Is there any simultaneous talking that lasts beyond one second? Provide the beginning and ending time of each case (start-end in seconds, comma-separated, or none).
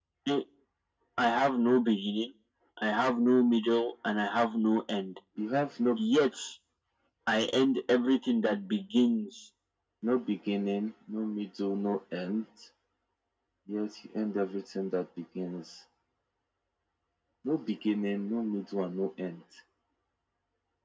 none